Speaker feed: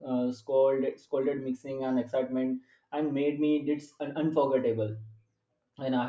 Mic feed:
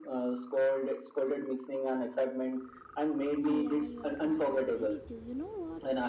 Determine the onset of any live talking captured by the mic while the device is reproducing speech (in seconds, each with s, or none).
3.4 s